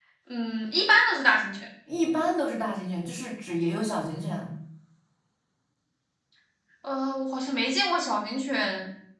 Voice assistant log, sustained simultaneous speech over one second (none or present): none